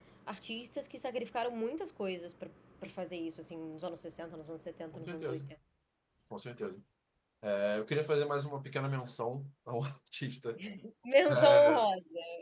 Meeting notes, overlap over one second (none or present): none